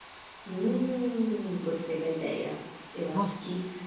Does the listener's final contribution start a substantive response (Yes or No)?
No